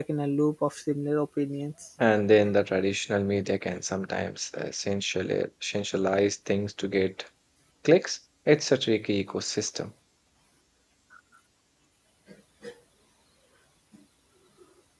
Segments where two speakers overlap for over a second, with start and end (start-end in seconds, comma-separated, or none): none